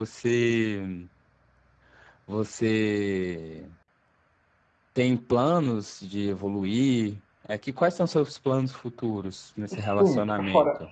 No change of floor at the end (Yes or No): No